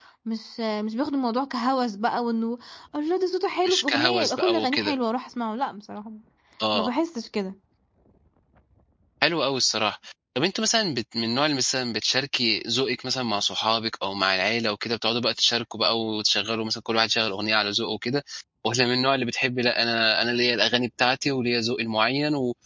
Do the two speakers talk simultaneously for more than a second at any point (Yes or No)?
Yes